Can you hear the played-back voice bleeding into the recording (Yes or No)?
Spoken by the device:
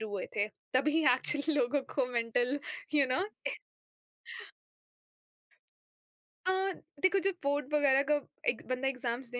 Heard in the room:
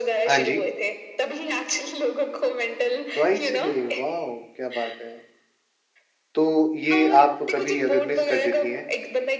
Yes